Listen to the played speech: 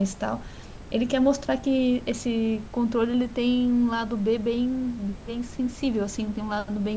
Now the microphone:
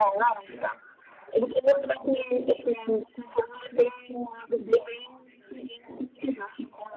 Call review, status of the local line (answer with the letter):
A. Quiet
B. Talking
A